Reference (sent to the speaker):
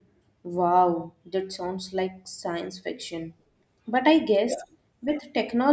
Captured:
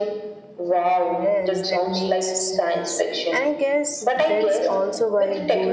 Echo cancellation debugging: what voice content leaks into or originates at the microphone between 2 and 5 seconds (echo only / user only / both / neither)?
both